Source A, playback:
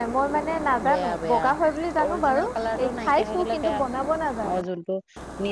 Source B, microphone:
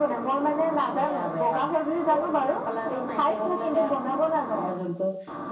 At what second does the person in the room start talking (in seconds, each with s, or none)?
none